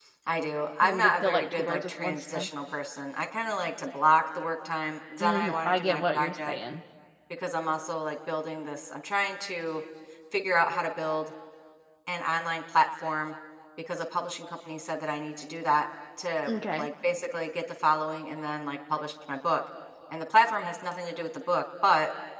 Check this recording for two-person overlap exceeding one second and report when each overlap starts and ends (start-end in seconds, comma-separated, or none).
0.8-2.5, 5.2-6.6